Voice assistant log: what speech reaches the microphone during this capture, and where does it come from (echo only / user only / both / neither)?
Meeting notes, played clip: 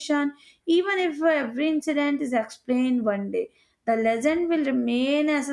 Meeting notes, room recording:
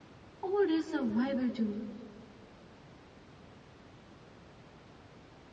user only